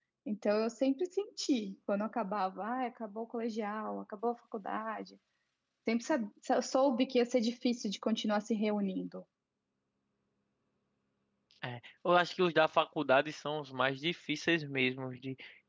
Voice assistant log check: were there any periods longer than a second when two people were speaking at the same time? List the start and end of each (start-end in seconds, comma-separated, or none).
none